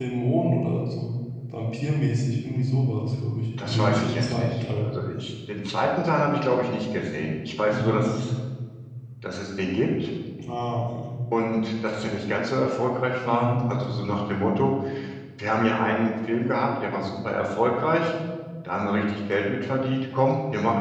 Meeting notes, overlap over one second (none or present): present